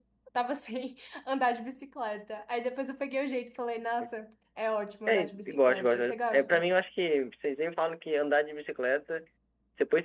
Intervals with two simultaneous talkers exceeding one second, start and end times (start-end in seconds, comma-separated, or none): 5.1-6.6